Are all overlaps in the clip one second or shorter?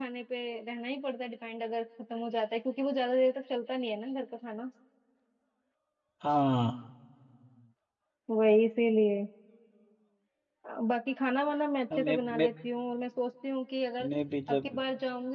Yes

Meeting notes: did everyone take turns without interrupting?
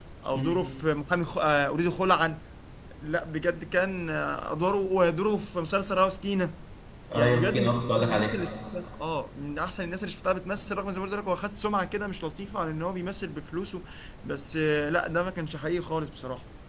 No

